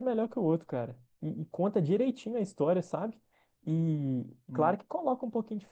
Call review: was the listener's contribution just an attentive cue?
Yes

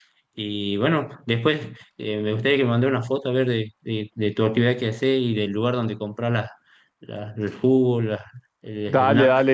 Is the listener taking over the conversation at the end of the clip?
Yes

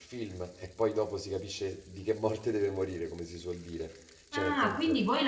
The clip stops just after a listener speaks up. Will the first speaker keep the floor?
No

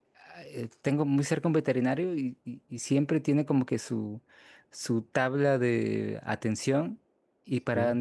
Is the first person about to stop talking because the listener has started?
No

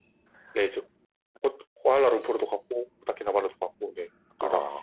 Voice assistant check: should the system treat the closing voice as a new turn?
Yes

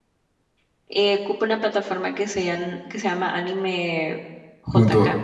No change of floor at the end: No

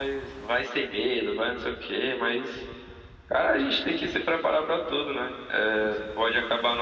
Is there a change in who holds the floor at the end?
No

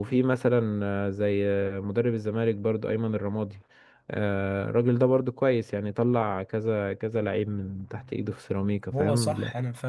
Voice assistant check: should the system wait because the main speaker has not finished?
No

